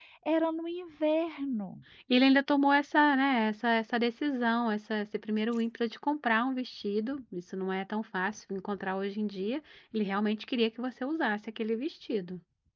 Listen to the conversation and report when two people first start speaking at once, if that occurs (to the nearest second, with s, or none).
none